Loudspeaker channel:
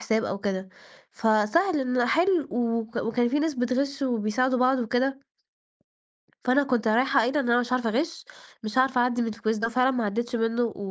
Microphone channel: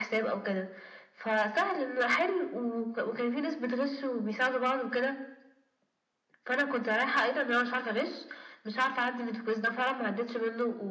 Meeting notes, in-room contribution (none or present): none